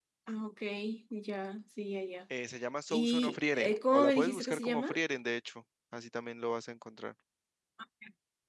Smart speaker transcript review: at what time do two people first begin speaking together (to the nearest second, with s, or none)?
3 s